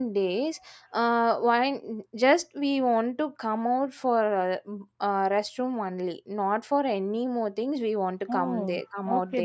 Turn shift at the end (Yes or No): Yes